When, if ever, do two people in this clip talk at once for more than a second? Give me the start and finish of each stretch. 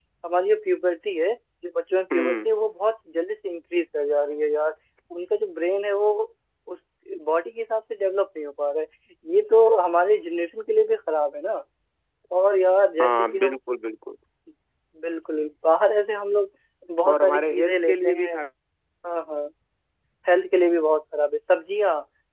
17.1-18.3

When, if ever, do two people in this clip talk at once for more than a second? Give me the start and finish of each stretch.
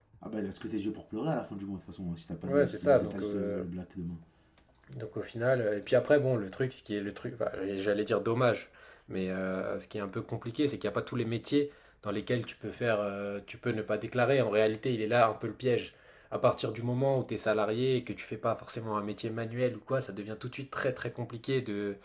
2.4-3.7

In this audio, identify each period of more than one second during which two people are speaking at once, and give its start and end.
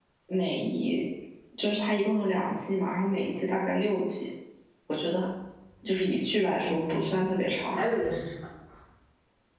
6.6-7.9

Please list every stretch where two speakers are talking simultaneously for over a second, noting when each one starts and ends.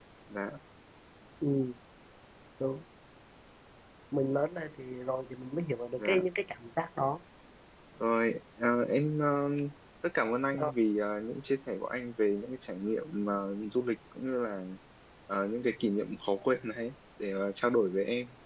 none

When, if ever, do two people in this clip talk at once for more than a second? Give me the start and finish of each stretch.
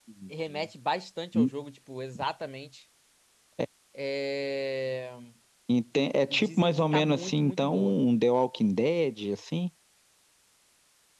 6.3-8.0

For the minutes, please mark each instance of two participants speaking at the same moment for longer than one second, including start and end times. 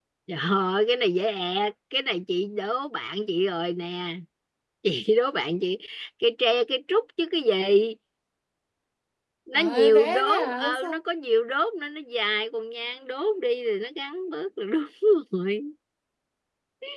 9.6-11.0

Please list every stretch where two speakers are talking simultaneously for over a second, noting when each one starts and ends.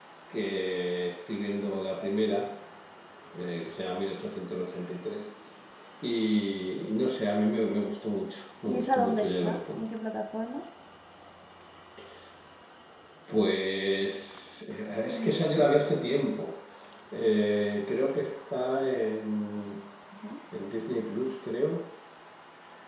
8.7-9.9

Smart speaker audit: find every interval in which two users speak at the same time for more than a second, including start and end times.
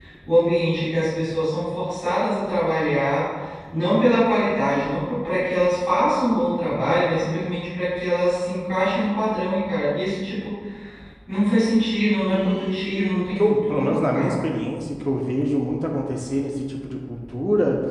12.3-14.6

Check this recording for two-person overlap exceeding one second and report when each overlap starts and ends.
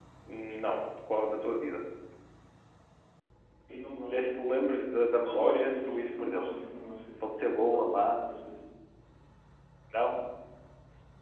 5.2-6.5

